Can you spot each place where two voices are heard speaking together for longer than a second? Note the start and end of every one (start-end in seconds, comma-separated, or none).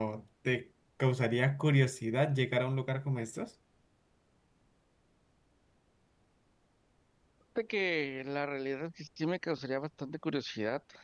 none